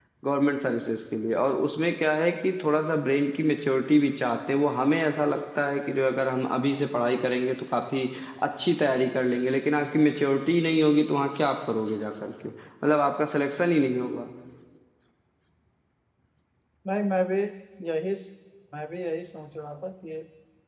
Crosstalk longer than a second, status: none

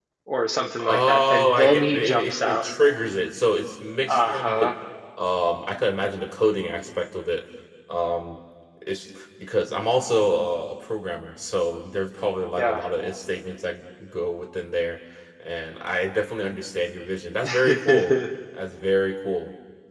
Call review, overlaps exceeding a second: present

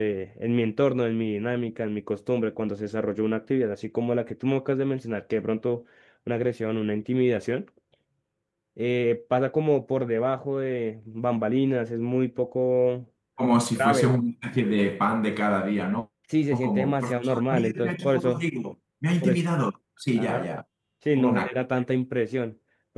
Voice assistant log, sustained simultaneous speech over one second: present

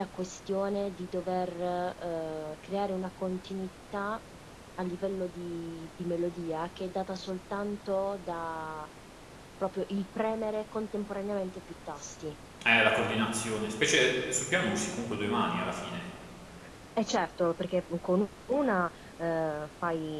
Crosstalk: none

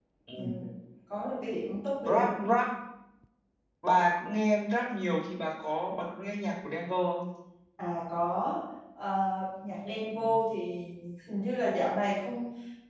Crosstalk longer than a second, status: none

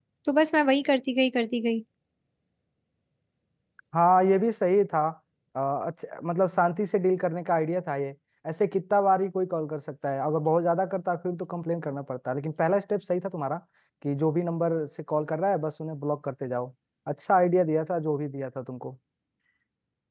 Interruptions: none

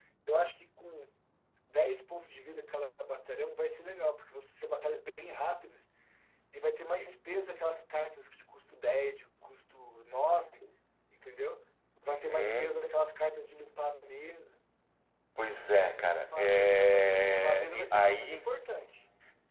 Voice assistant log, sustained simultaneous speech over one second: present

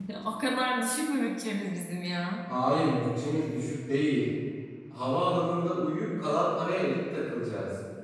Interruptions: none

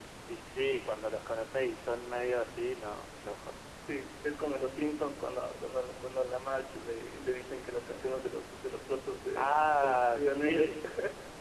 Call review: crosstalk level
present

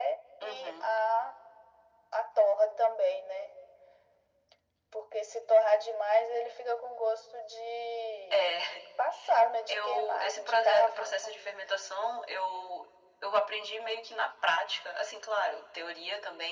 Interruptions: present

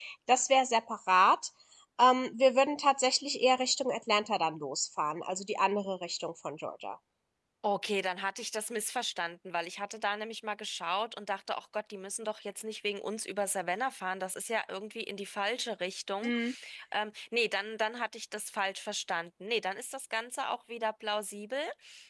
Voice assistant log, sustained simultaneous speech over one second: none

